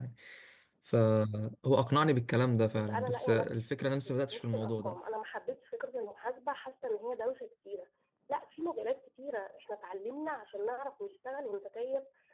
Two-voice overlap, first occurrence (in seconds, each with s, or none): 2.7 s